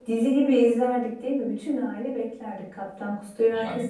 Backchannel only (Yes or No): No